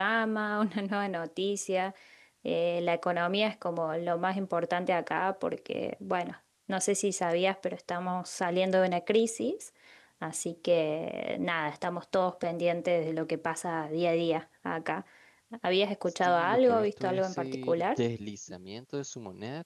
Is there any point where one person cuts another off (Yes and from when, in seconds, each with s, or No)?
Yes, from 16.2 s